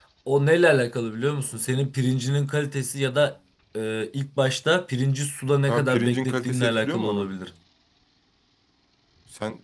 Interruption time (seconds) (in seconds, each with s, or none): 5.7 s